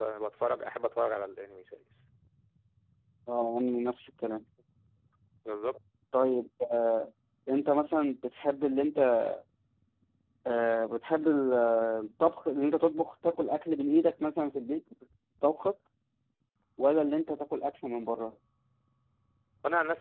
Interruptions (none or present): none